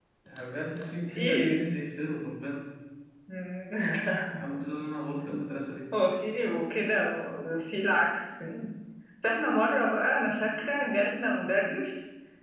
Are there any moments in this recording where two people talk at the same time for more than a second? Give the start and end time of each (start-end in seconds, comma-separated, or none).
none